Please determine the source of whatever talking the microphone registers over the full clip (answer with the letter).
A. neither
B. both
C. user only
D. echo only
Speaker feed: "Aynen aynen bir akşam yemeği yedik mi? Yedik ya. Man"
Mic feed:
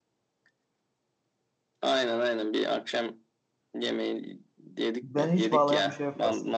B